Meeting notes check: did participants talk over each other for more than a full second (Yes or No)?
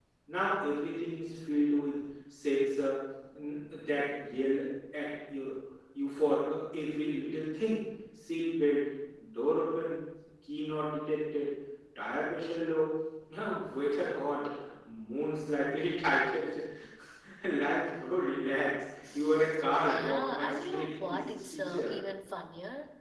Yes